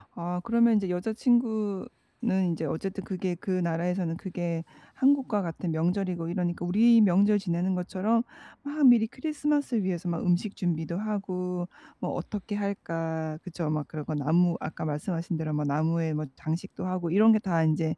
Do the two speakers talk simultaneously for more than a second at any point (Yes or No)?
No